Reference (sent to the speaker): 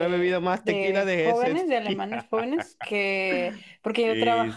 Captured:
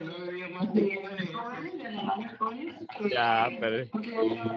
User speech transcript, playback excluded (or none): Ya, pero...